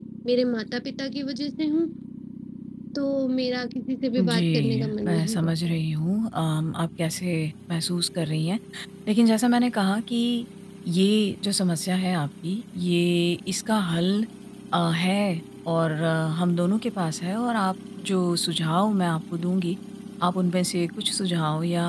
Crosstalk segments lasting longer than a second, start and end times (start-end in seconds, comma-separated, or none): 4.2-5.8